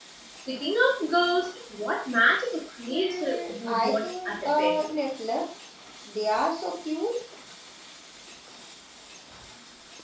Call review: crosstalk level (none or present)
present